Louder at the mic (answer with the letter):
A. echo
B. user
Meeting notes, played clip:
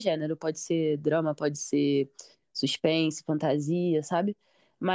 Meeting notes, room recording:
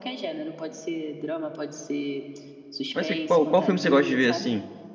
B